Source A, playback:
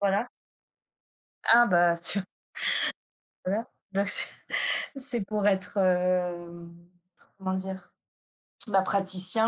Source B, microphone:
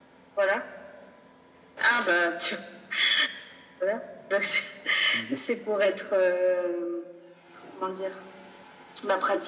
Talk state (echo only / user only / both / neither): both